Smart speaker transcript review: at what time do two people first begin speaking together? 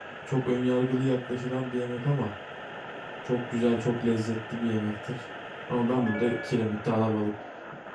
none

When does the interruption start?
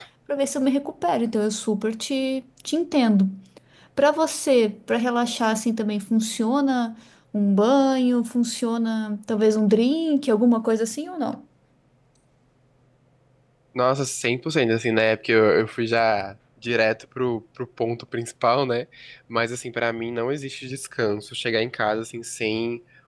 none

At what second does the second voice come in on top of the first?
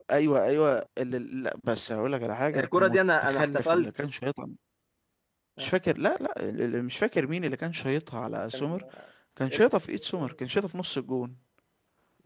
2.5 s

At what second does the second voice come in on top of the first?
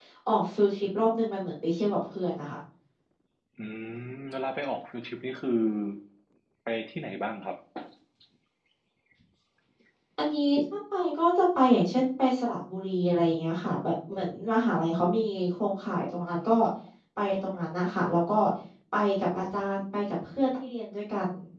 none

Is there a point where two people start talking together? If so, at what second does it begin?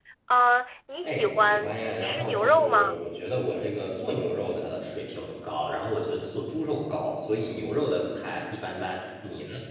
1.0 s

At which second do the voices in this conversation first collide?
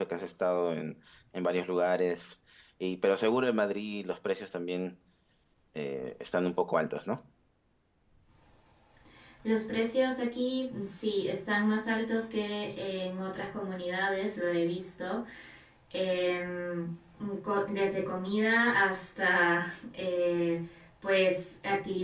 none

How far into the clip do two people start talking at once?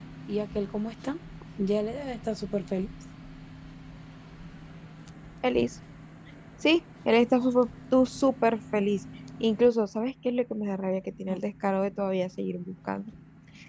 none

